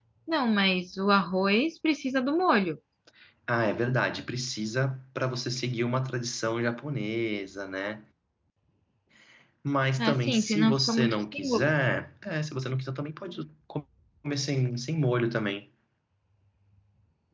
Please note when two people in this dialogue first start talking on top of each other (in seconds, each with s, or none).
10.0 s